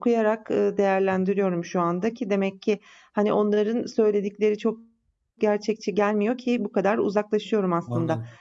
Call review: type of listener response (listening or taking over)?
listening